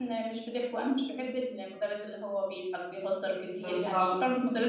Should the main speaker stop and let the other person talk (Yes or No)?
No